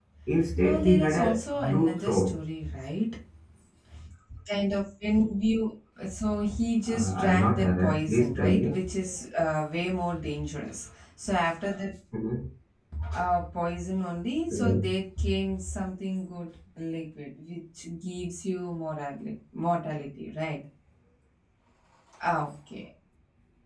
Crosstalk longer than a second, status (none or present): present